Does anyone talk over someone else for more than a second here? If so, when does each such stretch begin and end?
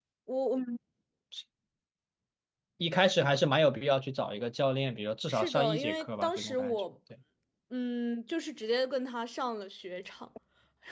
5.3-6.8

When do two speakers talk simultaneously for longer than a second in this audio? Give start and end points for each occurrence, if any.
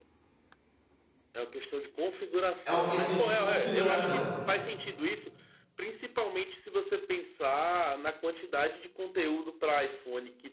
2.6-4.3

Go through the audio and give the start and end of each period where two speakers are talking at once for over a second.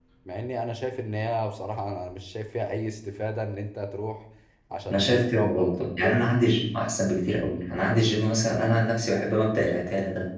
4.9-6.3

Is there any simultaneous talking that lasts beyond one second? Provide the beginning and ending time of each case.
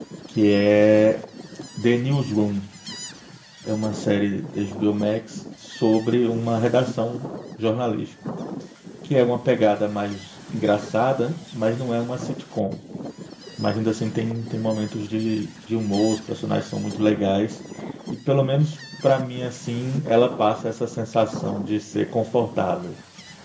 none

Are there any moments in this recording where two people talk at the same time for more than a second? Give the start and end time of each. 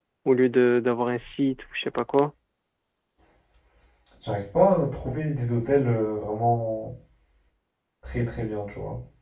none

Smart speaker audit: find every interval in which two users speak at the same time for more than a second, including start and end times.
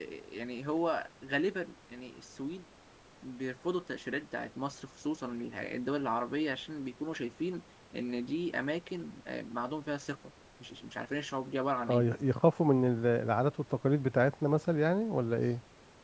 none

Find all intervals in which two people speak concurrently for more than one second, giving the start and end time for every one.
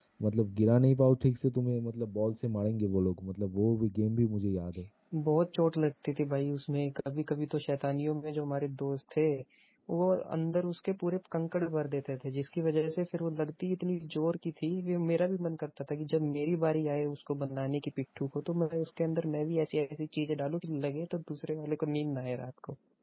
none

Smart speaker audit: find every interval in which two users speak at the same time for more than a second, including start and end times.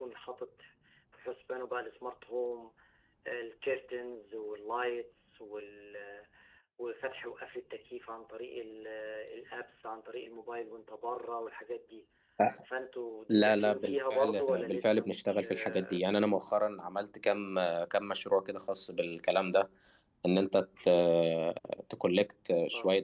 13.3-16.0

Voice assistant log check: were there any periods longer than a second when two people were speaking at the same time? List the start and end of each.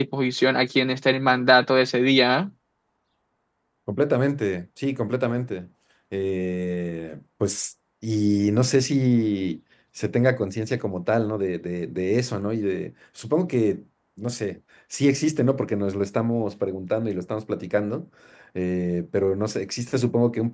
none

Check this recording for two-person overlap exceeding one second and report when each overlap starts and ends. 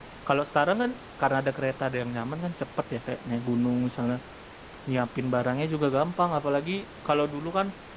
none

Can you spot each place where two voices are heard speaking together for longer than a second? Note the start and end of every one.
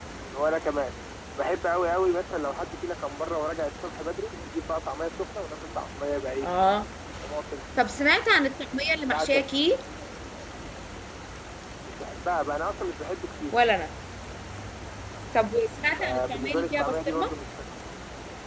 16.0-17.3

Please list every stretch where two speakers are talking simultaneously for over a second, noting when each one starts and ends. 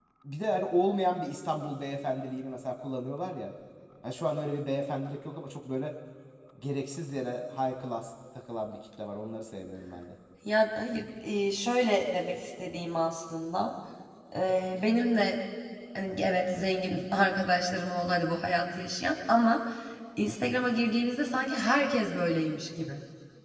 none

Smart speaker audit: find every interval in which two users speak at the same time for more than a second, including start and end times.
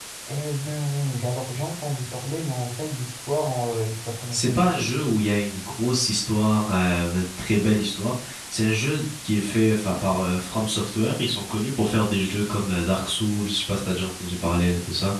none

